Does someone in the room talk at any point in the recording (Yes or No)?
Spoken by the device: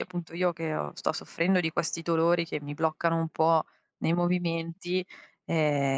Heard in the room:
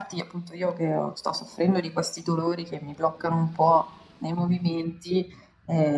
No